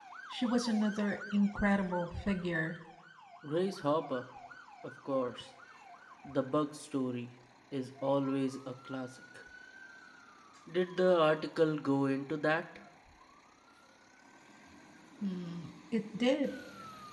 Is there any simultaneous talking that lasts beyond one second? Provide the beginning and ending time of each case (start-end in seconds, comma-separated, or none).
none